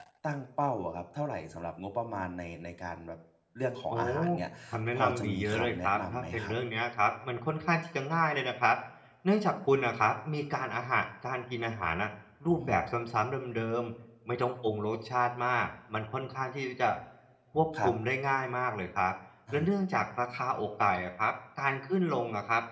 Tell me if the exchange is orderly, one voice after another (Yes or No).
No